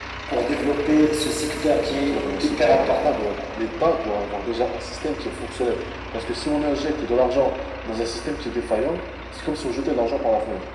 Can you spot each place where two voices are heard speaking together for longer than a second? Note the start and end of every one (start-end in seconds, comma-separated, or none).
1.9-3.2